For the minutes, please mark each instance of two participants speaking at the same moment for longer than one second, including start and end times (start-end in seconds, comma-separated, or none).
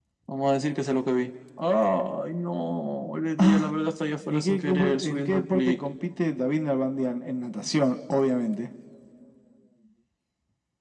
4.3-5.8